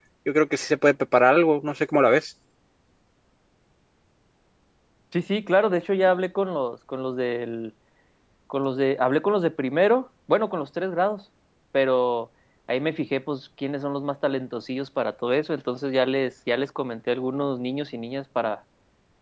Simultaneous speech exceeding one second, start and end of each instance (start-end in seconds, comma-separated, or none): none